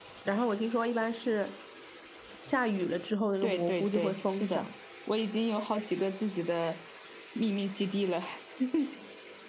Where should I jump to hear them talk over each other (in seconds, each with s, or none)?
3.4 s